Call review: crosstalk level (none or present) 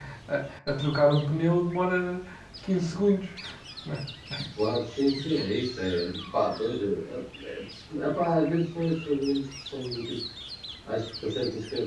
none